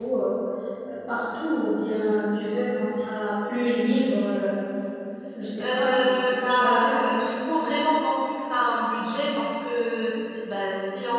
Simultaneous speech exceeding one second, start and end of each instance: 5.6-7.0

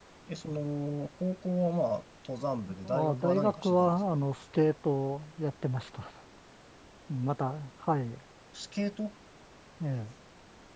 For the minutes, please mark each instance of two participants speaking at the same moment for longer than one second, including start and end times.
2.8-4.2

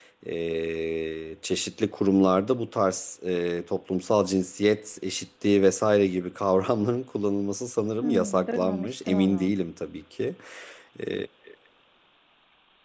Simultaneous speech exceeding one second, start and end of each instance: 8.0-9.5

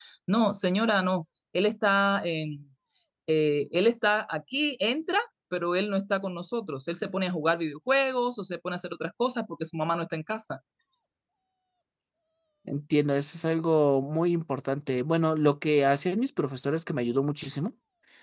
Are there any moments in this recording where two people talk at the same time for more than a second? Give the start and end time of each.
none

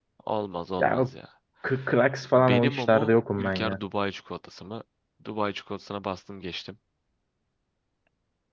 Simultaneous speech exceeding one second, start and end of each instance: 2.4-3.8

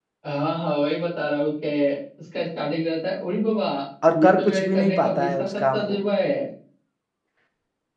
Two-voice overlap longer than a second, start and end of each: 4.2-6.0

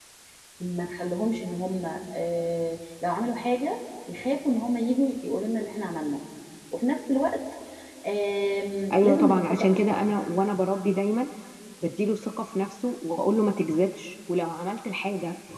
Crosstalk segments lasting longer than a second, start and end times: 8.9-10.2

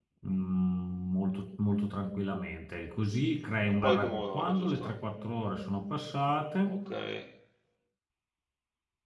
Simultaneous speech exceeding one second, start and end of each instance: 3.7-4.9

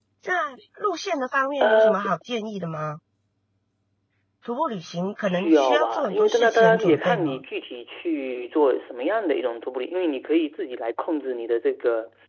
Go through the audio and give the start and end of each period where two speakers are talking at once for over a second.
5.2-7.4

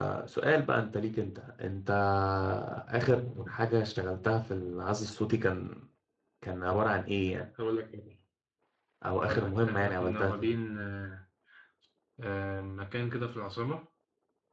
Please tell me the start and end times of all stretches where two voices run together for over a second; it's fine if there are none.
9.2-10.6

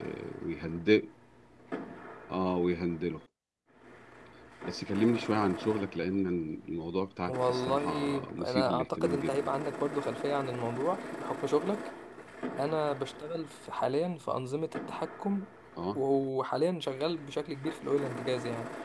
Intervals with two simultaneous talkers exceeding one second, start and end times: 7.3-9.5

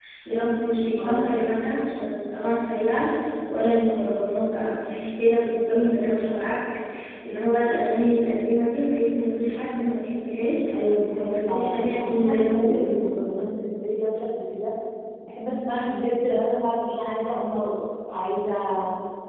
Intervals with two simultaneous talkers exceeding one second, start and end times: 11.1-12.9

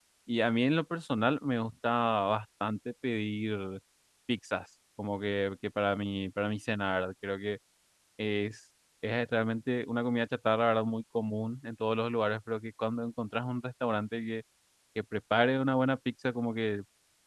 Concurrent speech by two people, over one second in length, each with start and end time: none

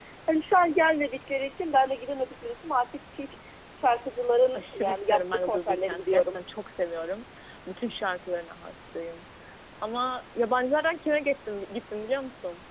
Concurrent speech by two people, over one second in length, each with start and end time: 4.5-6.4

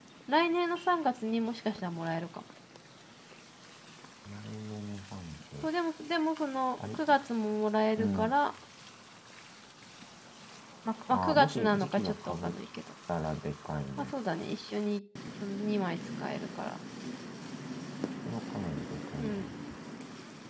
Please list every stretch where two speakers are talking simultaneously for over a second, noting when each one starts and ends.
11.1-12.5

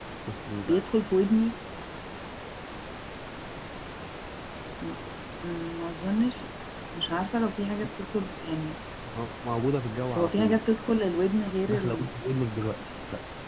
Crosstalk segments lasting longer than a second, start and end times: none

